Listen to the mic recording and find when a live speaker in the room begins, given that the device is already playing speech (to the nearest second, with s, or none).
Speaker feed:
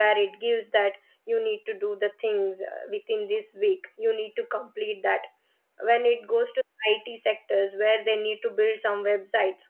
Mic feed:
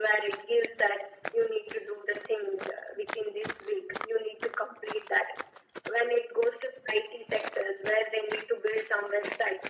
none